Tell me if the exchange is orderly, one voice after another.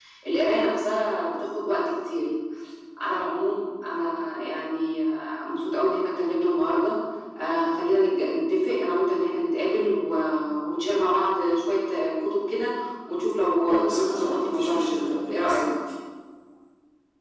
No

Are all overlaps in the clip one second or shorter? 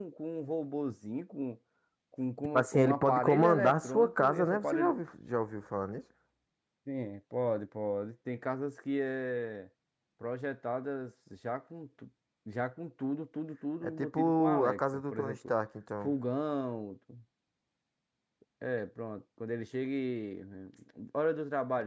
No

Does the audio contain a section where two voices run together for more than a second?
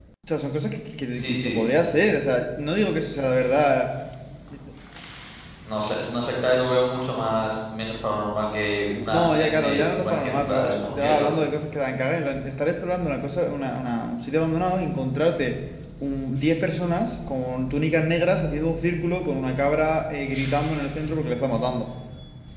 Yes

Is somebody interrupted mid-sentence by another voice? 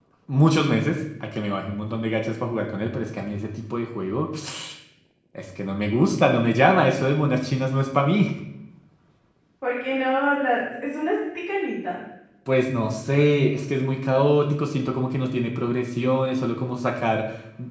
No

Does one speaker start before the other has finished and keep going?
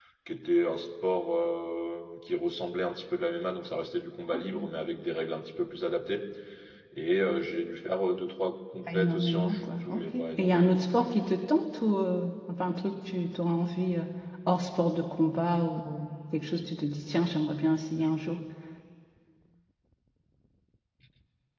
Yes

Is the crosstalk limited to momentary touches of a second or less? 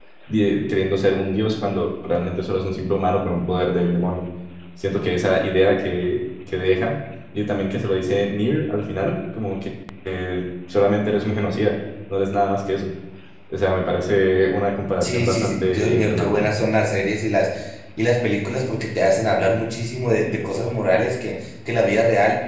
No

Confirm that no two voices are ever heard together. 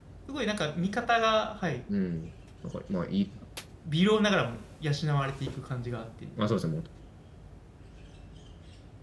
Yes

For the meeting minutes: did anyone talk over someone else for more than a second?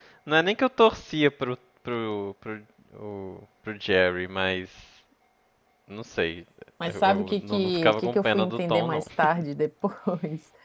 Yes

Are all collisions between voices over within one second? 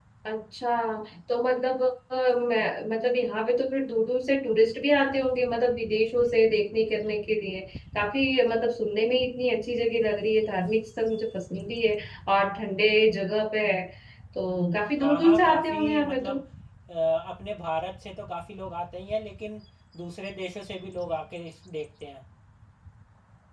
No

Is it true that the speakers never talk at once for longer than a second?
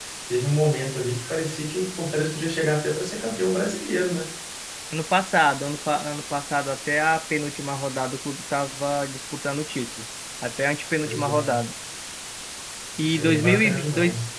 No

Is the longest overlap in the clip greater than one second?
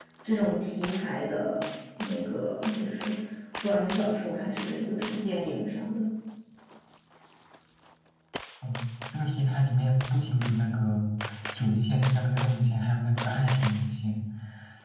No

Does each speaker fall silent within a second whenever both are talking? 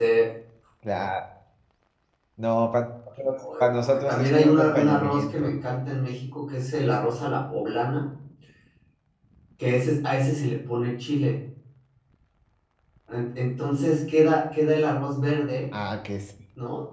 No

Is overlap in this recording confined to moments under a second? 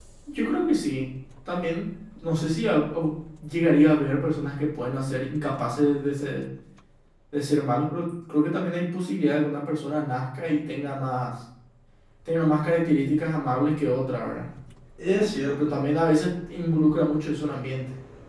Yes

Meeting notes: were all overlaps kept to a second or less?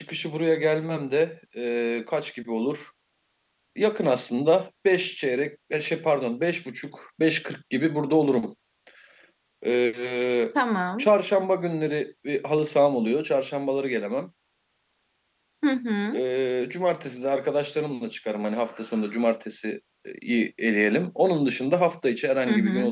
Yes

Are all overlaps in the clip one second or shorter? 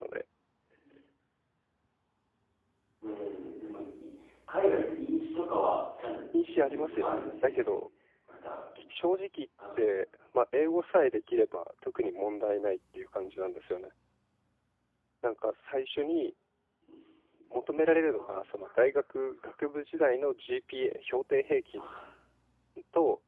No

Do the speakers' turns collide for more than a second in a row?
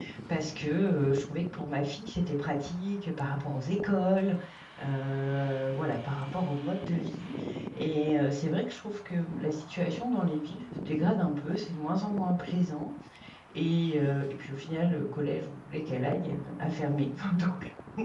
No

